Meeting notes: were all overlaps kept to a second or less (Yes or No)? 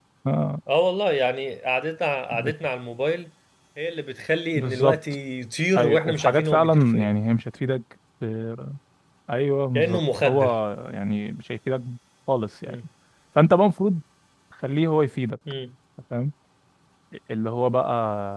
No